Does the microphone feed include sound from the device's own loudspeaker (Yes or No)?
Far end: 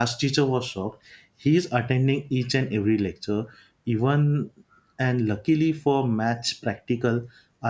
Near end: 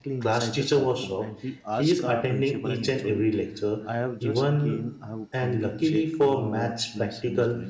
Yes